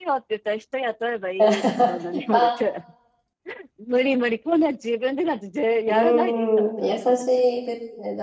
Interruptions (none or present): present